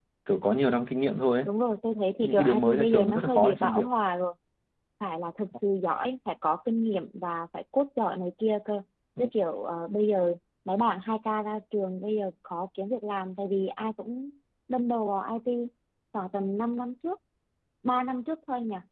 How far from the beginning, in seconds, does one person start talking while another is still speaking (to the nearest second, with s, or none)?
2 s